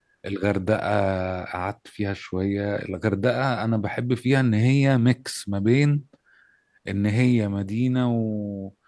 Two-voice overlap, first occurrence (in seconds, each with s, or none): none